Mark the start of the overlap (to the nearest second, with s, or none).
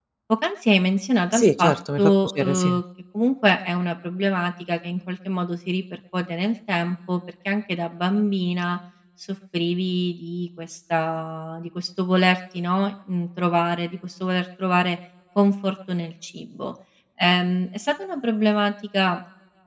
1 s